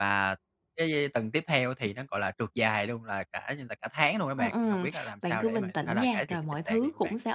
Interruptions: present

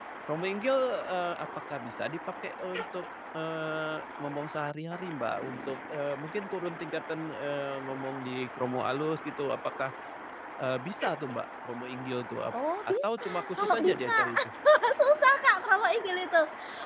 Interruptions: present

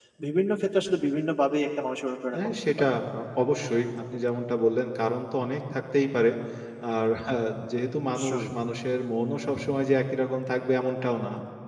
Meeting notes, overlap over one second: none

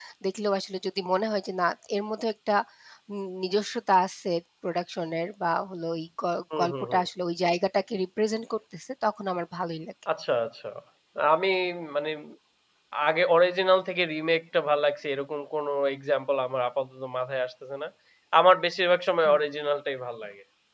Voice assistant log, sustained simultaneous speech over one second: none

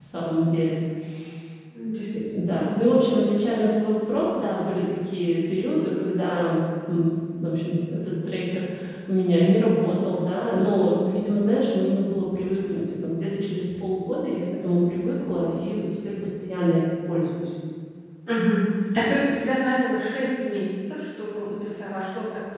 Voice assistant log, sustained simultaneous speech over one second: none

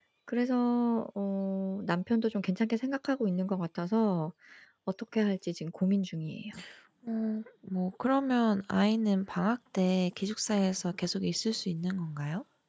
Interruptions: none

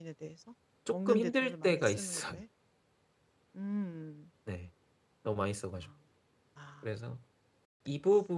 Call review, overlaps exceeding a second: present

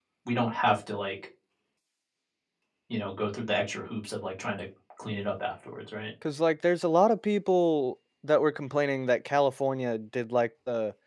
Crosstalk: none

